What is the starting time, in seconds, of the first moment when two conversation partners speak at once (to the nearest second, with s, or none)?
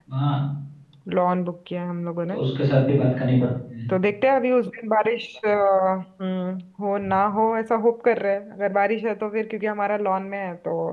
none